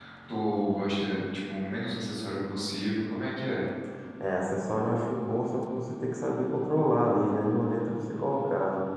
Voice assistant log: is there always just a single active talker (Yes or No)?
Yes